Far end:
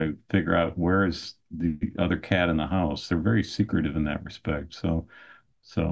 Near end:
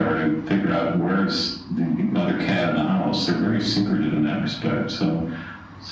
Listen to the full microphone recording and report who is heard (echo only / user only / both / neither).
echo only